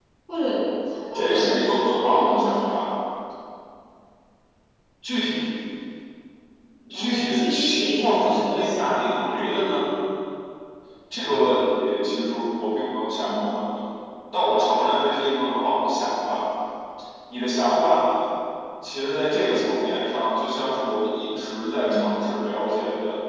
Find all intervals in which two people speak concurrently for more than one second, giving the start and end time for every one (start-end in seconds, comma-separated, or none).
1.1-2.9, 6.9-9.2